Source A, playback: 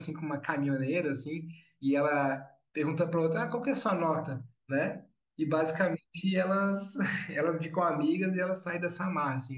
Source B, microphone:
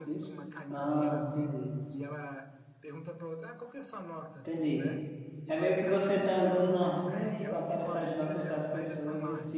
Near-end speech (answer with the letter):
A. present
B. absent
A